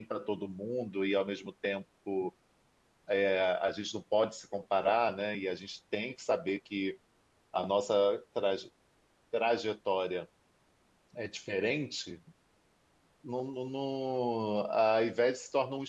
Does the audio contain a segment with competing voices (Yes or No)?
No